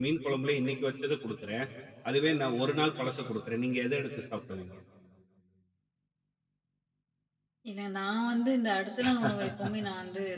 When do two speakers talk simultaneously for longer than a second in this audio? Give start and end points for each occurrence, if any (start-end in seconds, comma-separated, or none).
none